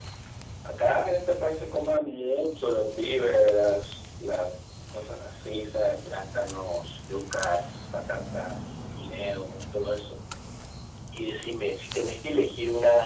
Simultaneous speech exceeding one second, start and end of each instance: none

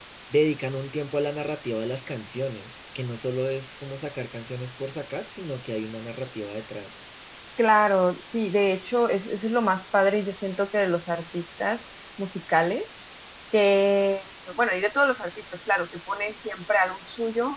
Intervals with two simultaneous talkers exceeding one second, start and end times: none

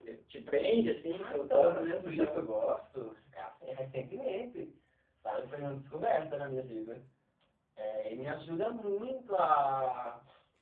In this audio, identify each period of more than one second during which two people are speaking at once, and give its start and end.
1.1-2.4

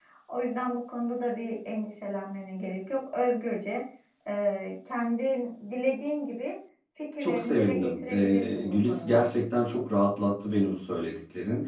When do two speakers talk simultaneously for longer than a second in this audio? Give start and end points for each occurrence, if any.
7.2-9.2

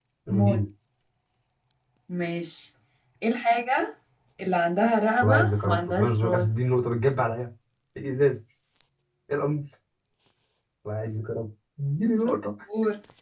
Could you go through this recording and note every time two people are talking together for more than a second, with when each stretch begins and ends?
5.2-6.5

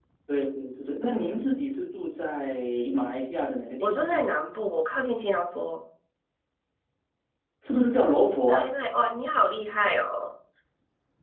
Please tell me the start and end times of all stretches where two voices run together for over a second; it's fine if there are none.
none

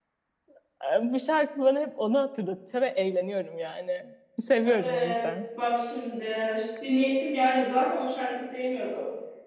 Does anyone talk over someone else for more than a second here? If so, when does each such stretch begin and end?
none

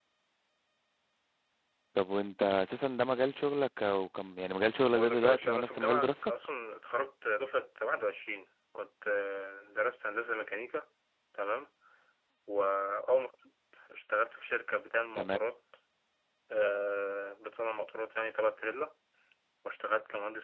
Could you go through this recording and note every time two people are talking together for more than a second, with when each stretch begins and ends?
5.0-6.3

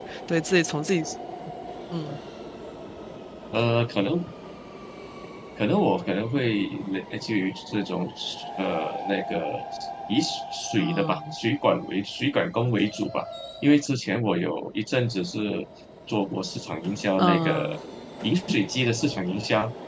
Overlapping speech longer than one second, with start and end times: none

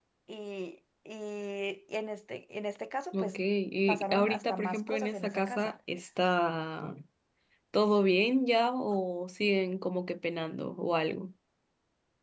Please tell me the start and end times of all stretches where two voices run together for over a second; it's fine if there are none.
3.9-5.8

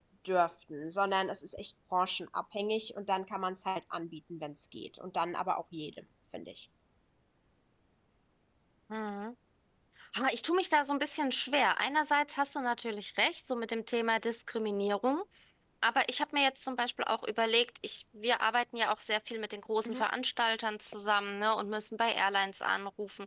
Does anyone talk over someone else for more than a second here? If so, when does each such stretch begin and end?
none

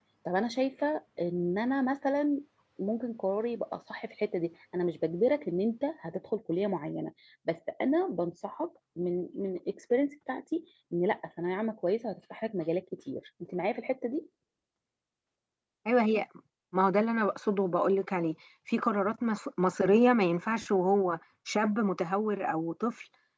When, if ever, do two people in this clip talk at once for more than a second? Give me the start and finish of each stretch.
none

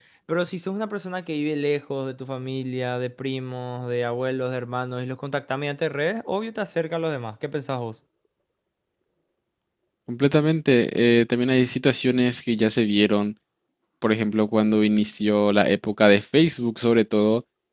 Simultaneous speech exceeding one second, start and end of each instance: none

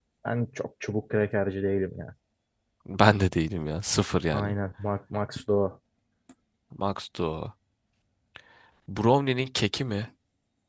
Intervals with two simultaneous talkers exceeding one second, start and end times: none

